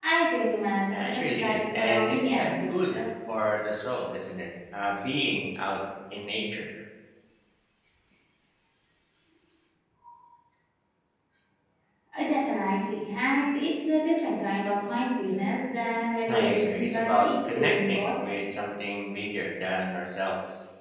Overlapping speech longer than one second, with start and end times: 0.9-3.1, 16.3-18.3

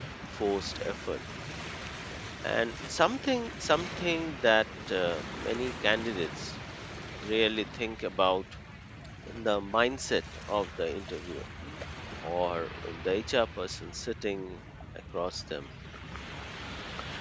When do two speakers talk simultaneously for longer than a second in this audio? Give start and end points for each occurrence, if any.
none

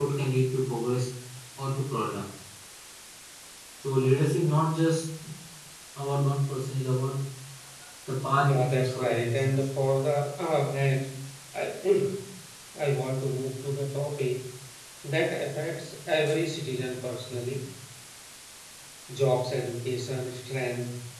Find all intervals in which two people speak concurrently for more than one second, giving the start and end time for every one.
8.4-9.7

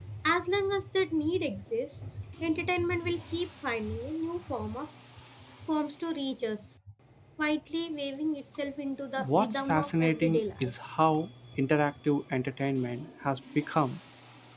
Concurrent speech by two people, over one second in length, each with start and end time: 9.3-10.7

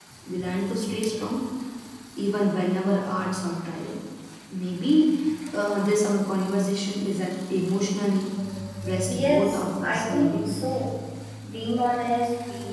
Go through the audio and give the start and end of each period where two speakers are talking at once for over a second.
9.1-10.5

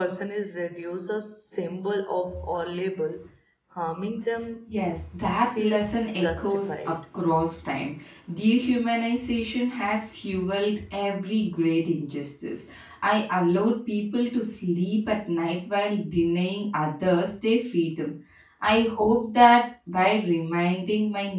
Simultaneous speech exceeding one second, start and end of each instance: 5.6-7.0

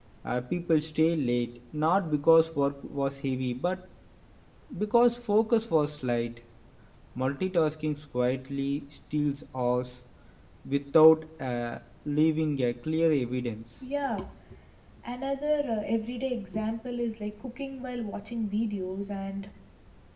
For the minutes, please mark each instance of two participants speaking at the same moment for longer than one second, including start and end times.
none

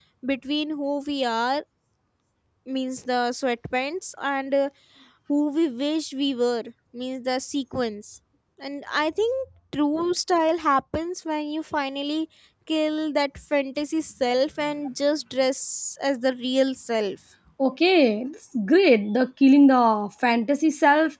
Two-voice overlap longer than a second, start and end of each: none

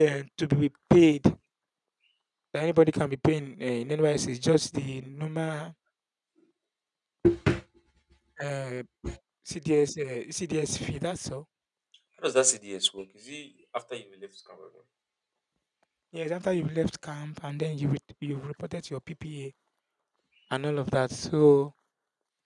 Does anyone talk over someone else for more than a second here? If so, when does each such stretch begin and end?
none

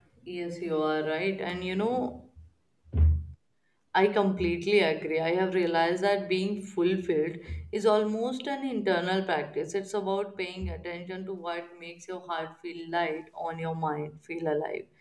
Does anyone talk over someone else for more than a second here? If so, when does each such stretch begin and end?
none

